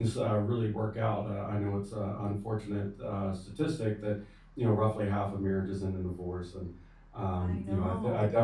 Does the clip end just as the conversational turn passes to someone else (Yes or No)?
No